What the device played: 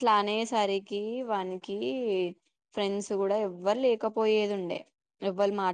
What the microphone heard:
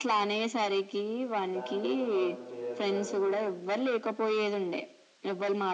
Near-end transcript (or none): దానికోసం వాడు తీయ కాదు